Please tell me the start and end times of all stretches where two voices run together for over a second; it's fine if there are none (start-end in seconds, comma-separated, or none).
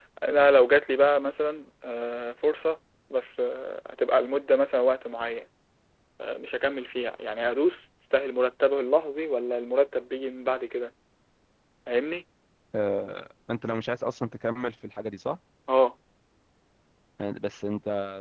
none